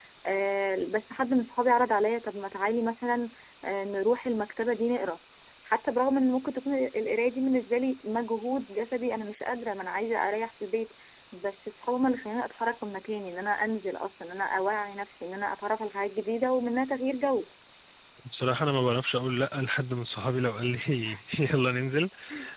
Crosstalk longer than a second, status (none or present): none